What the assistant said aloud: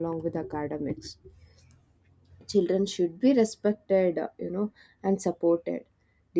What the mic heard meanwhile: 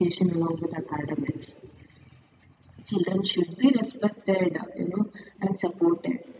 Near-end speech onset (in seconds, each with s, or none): none